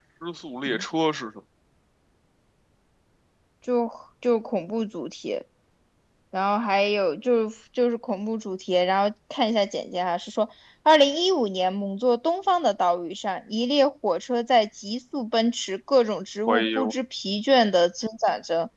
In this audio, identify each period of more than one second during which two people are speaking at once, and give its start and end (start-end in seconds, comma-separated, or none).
none